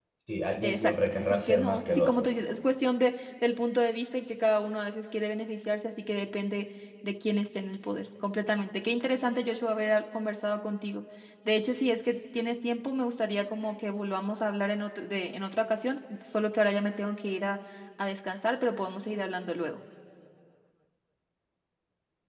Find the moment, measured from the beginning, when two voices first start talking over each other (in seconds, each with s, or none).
0.6 s